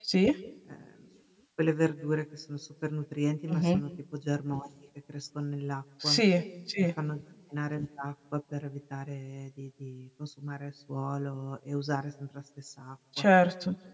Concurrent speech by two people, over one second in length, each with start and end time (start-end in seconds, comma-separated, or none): none